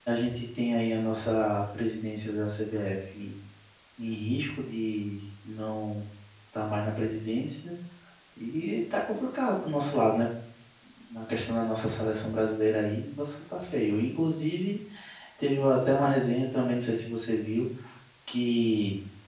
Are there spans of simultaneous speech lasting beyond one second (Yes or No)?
No